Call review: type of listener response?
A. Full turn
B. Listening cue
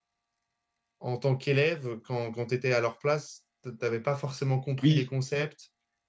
B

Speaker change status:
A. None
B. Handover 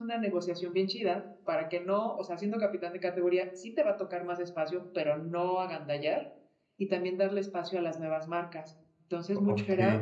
A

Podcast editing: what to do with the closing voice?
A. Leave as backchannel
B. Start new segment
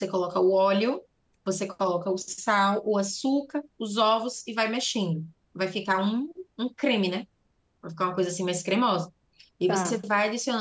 A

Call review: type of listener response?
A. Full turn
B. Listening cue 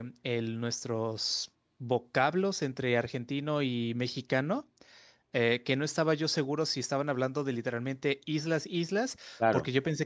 B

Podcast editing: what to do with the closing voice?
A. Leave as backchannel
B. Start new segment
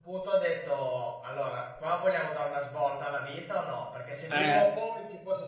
A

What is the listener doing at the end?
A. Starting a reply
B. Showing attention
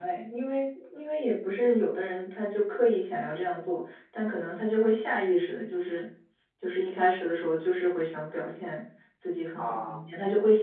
B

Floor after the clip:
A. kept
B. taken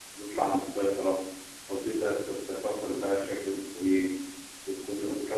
A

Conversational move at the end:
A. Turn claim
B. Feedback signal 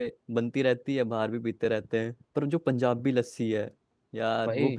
A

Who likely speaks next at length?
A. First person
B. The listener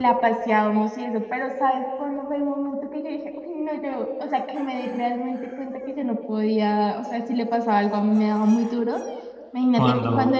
A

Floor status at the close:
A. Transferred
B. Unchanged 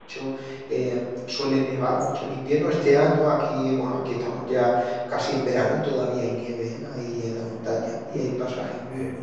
B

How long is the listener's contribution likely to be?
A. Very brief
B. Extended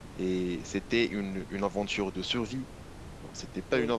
A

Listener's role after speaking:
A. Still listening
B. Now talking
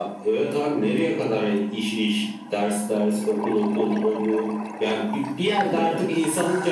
A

